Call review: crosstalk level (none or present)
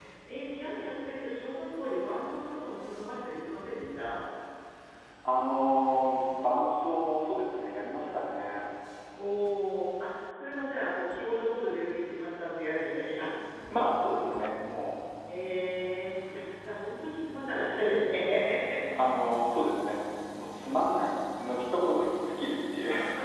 none